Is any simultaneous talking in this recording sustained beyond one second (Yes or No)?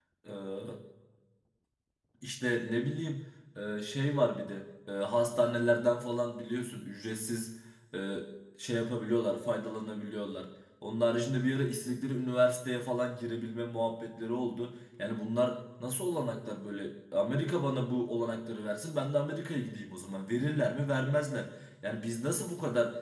No